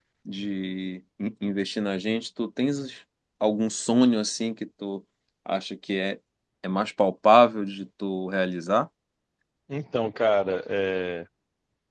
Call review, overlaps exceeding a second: none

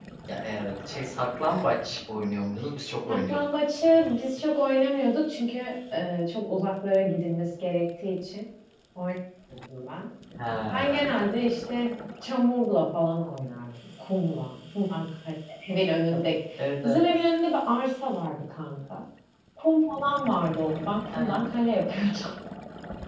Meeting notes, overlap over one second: none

